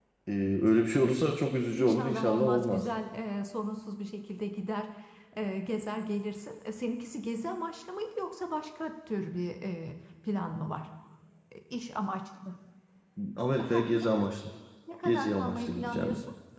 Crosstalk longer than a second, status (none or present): present